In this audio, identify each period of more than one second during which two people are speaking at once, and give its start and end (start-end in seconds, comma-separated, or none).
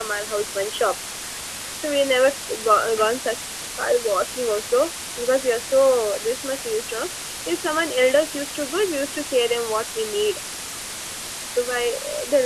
none